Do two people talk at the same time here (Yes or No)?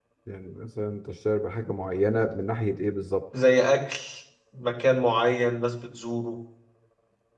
No